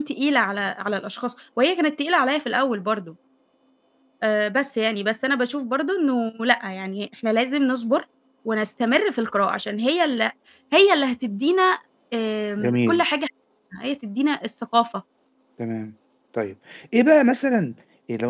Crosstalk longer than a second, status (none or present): none